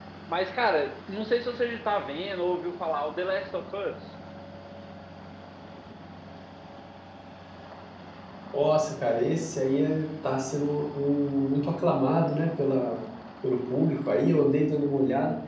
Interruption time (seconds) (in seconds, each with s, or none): none